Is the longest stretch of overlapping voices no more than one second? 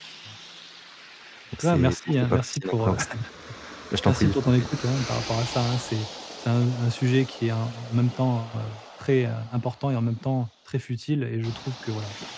No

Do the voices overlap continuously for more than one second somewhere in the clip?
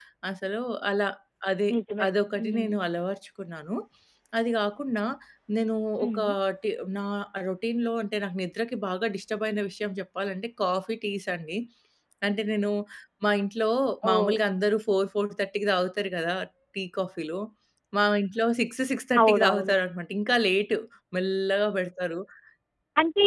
No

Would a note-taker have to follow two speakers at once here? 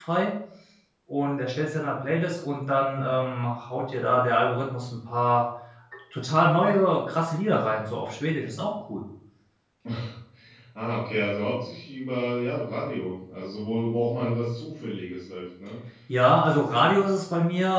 No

